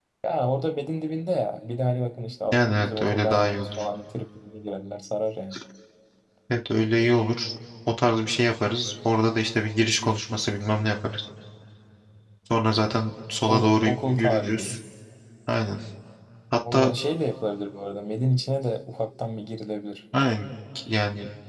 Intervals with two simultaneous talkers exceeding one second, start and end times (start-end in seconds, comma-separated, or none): 2.5-3.8, 13.5-14.8